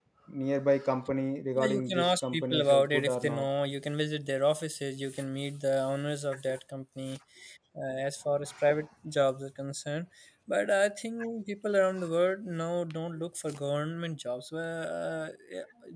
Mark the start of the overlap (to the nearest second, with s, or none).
2 s